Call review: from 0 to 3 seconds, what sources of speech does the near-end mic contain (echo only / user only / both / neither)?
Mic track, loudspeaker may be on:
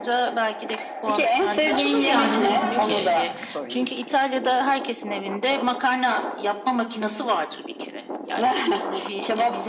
both